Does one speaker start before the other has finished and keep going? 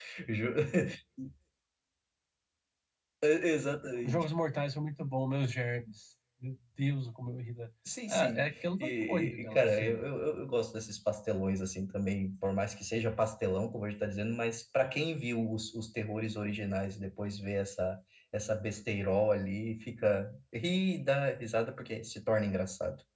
Yes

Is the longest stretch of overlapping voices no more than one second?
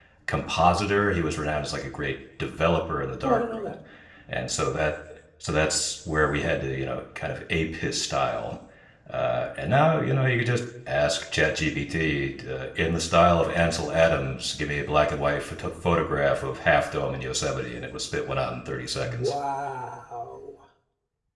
Yes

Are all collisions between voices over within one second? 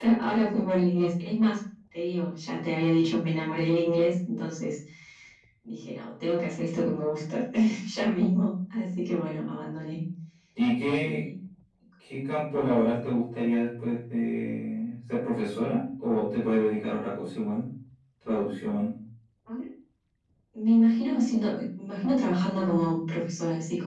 Yes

